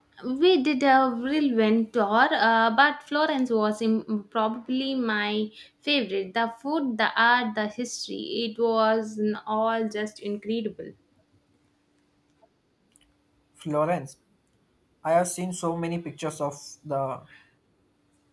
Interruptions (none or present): none